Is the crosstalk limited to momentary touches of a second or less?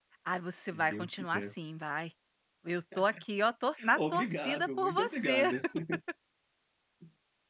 No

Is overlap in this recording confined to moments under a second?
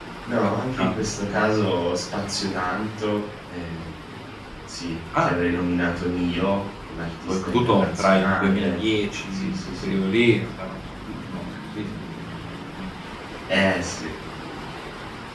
No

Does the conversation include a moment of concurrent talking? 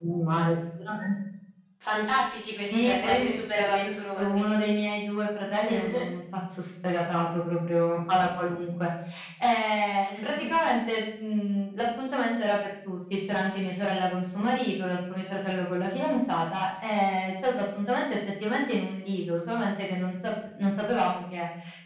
Yes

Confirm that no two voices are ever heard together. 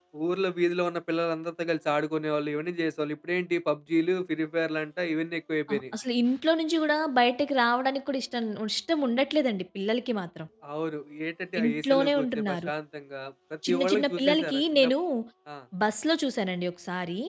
No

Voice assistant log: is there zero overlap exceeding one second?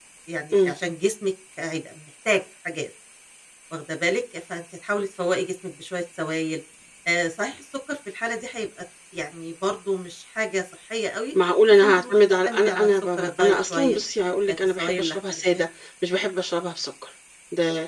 No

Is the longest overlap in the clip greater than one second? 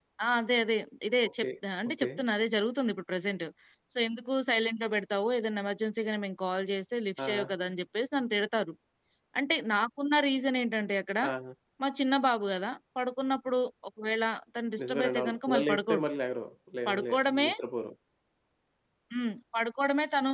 Yes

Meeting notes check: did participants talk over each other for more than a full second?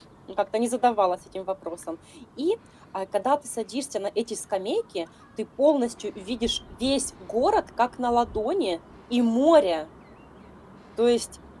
No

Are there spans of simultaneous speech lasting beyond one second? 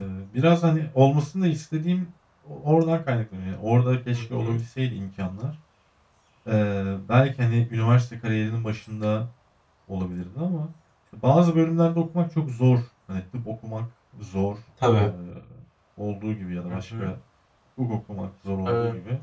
No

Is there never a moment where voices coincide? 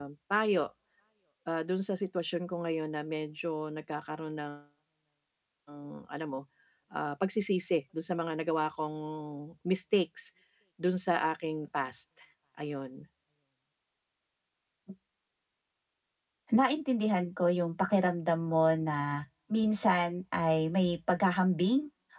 Yes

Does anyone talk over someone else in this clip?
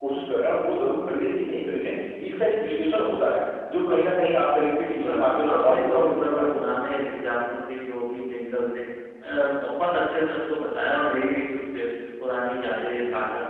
Yes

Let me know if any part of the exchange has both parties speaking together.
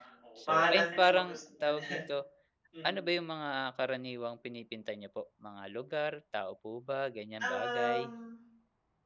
Yes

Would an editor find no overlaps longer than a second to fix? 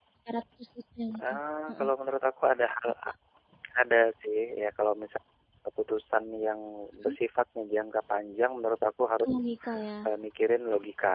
Yes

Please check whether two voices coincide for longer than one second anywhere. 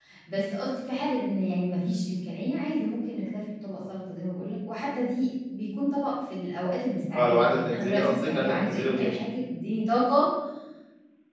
Yes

